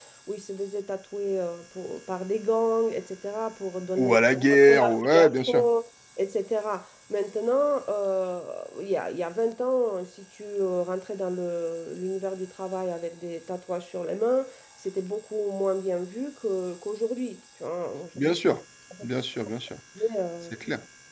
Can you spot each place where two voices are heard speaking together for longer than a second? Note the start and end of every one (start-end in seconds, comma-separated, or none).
4.0-5.6